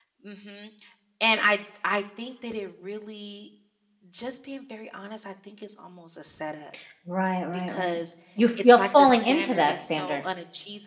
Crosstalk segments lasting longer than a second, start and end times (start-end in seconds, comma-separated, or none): 8.6-10.2